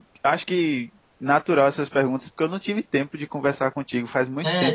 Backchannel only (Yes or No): No